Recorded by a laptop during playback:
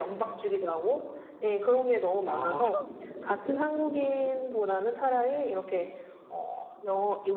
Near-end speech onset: 2.2 s

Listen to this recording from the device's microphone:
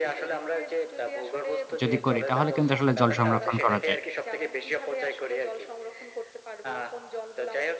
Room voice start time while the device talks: 1.8 s

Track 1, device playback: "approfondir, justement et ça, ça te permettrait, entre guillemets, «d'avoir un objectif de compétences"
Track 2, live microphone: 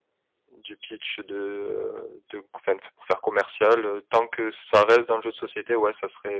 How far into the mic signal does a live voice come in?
0.5 s

